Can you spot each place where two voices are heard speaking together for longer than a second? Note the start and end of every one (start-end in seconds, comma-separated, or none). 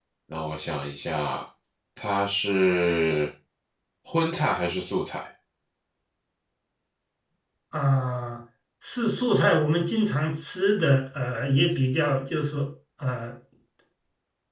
none